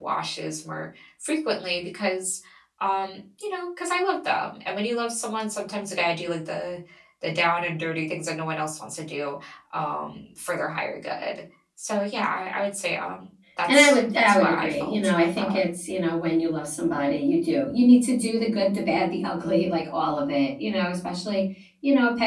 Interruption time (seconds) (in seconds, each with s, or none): 13.7 s